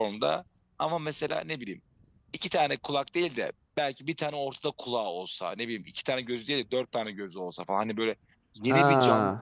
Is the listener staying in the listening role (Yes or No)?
Yes